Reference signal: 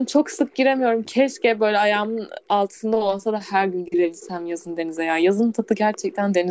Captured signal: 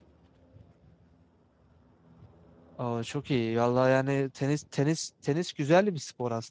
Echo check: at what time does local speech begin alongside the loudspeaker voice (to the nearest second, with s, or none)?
3 s